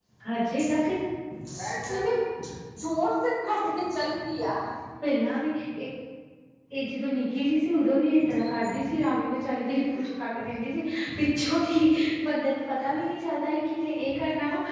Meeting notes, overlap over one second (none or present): none